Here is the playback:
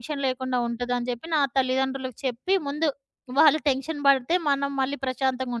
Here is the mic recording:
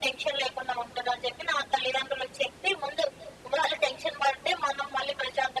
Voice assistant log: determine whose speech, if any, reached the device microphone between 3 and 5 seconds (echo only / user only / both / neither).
echo only